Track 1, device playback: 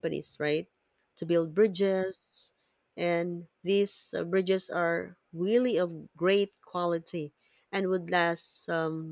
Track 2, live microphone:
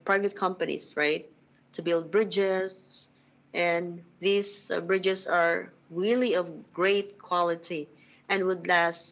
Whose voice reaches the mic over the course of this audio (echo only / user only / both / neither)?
echo only